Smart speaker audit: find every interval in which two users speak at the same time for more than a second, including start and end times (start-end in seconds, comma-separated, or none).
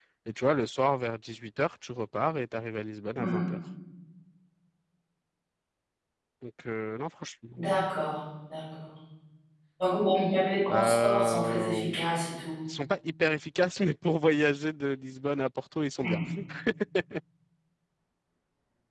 10.7-12.0